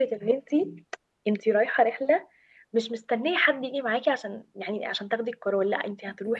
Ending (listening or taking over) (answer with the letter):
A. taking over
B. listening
B